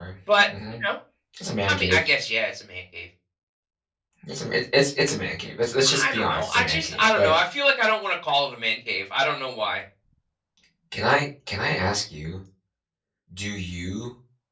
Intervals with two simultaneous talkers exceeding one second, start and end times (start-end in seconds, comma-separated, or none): 5.9-7.3